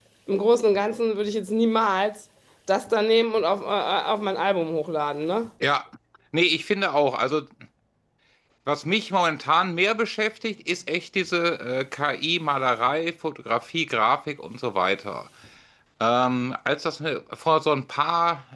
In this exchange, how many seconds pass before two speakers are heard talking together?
none

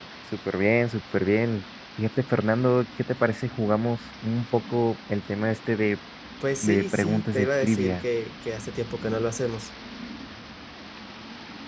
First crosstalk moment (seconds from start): 6.6 s

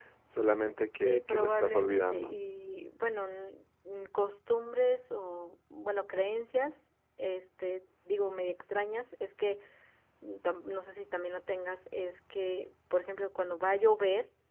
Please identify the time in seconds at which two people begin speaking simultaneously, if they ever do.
1.0 s

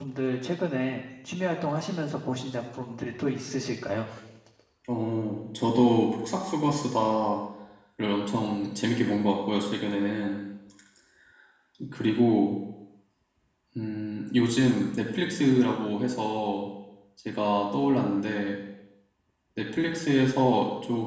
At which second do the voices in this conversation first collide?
none

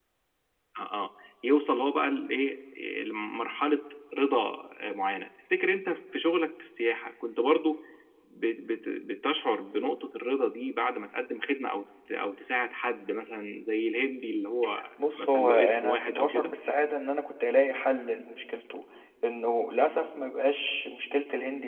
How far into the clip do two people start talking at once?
15.0 s

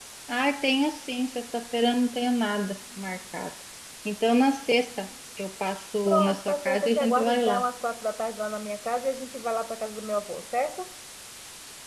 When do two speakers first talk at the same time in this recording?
6.1 s

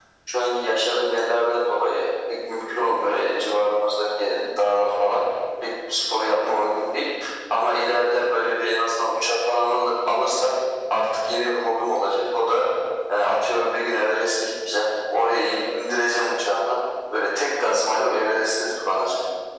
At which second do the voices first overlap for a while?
none

